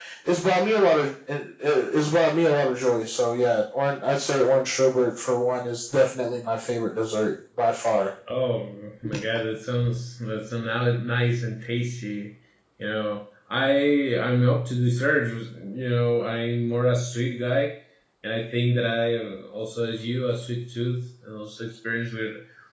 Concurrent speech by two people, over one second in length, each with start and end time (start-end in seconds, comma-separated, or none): none